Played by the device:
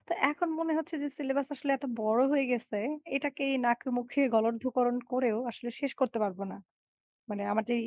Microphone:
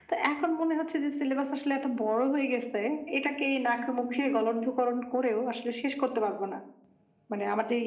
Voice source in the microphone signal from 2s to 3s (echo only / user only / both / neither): echo only